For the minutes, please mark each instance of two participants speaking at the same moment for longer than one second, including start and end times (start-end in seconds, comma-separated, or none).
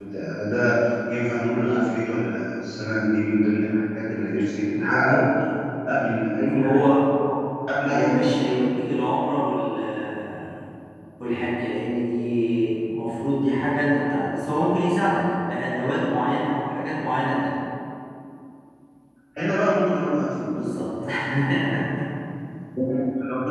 none